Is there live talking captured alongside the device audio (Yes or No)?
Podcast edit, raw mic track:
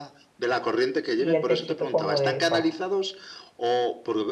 Yes